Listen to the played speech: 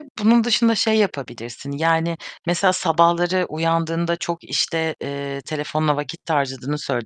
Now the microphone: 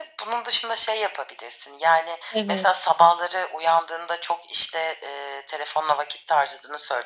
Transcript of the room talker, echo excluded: Evet.

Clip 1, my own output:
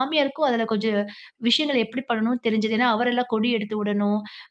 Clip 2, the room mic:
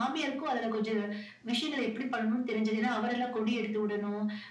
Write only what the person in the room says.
none

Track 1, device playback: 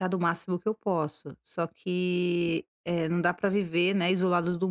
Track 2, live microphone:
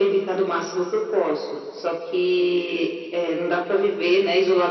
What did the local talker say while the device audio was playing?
none

